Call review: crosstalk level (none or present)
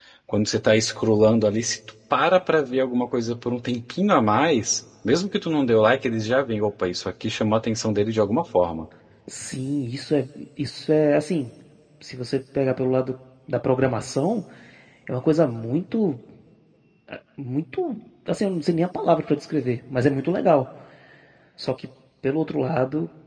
none